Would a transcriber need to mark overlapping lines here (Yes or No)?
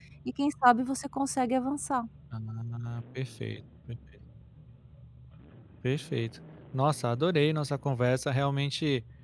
No